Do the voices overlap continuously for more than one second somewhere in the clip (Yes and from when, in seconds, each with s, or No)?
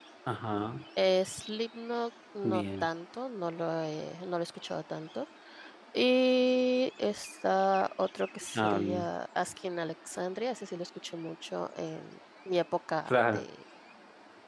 No